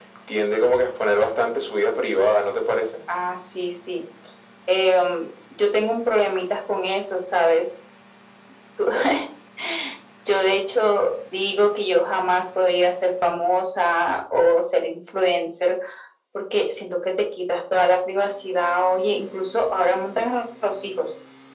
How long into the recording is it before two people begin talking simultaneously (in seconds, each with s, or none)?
none